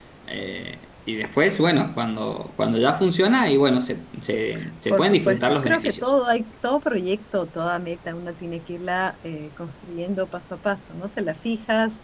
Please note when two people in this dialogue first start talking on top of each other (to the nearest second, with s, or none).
5 s